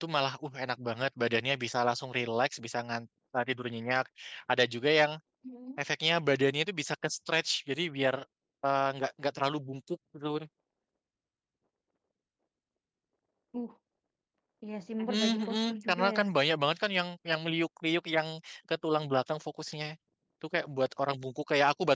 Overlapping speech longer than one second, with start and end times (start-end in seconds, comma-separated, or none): 15.0-16.2